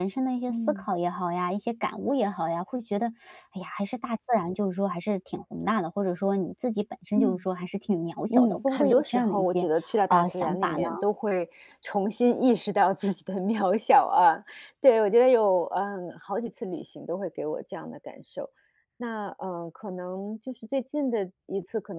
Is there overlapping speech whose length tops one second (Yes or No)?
Yes